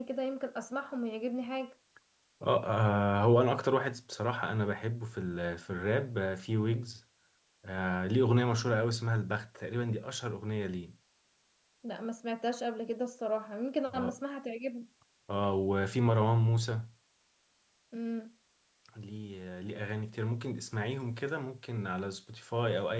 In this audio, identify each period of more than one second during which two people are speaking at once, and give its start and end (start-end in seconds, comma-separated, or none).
none